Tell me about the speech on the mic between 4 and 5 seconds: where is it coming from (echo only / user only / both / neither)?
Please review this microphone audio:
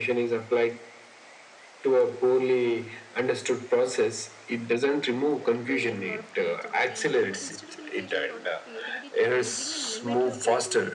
echo only